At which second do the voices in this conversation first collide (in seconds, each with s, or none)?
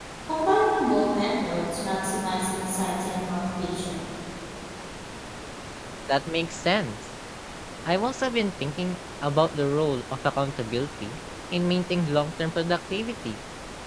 none